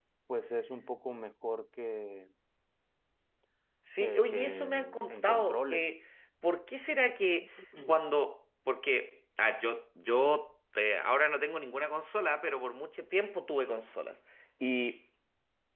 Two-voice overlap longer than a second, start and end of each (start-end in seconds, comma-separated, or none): 4.0-5.9